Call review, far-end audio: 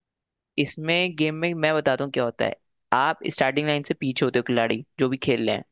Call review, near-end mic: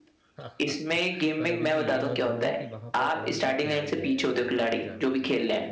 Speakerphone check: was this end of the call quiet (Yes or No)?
No